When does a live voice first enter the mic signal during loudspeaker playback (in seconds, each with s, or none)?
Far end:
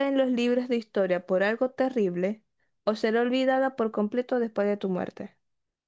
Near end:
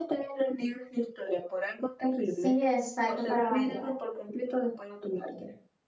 2.2 s